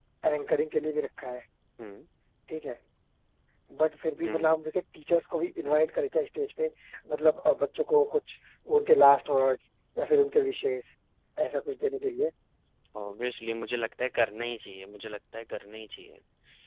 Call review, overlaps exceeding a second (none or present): none